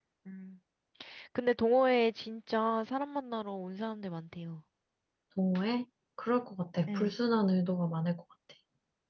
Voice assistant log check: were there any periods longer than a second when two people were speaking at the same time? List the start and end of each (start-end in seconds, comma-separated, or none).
none